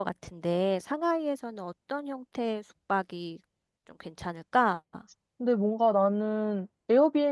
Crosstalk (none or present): none